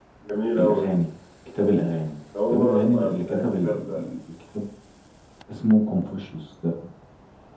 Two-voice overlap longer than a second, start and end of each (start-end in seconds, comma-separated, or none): 2.5-4.0